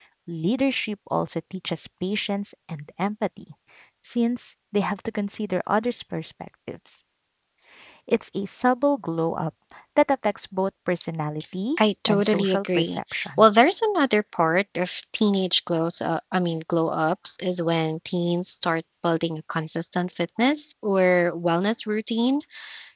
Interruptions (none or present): present